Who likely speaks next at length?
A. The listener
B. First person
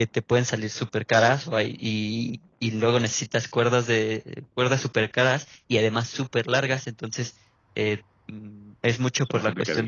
B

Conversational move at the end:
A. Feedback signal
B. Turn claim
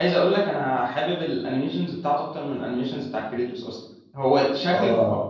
A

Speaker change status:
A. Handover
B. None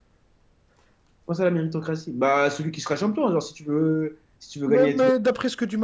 A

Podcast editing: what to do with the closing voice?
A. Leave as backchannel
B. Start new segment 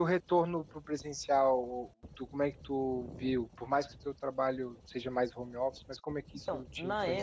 B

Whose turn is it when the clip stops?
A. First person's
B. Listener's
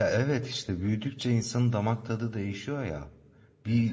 A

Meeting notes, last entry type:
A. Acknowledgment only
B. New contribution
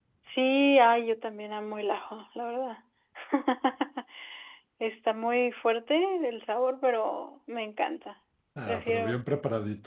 B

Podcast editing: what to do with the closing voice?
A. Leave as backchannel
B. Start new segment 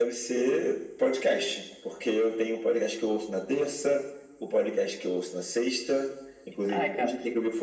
A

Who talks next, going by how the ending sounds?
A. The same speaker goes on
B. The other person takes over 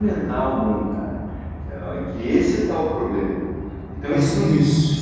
A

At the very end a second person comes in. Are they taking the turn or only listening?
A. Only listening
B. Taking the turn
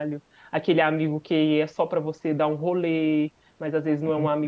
A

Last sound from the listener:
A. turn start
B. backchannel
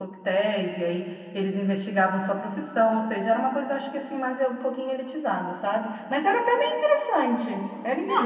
A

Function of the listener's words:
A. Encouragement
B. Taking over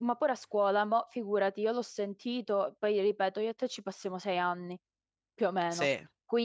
A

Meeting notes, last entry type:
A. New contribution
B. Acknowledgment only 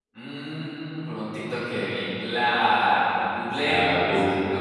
A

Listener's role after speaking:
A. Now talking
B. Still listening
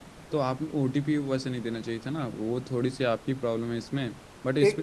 A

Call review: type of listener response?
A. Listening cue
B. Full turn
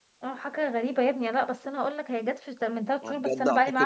B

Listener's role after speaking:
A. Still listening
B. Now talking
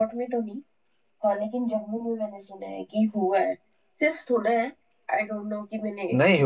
B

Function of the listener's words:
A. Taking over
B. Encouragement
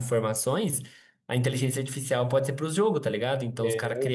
B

